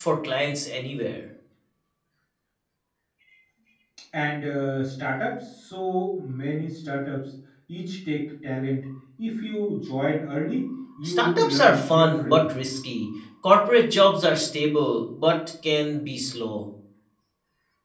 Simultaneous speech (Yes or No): Yes